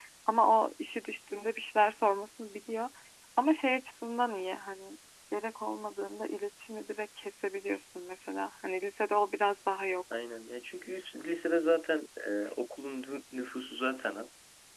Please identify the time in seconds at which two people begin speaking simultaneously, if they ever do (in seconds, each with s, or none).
none